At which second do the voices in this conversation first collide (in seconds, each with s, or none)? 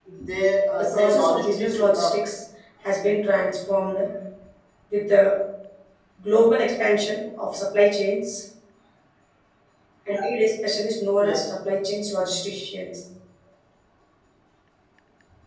0.7 s